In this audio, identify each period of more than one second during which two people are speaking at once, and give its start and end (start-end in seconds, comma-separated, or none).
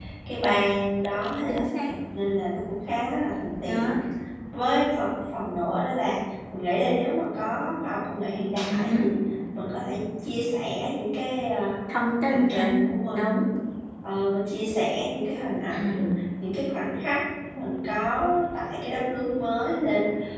none